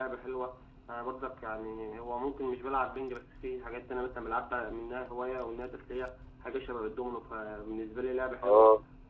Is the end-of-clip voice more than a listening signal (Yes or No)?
Yes